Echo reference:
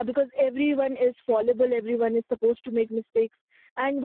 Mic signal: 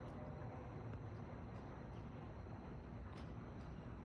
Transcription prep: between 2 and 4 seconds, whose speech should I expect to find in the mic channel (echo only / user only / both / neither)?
neither